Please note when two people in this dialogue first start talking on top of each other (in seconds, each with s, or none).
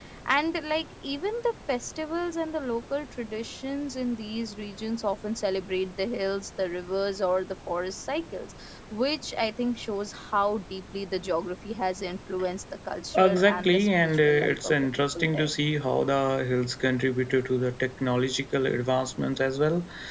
13.1 s